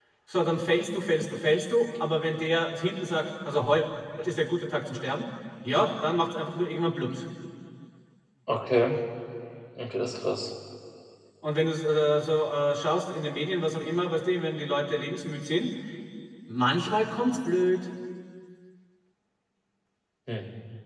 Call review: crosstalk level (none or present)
none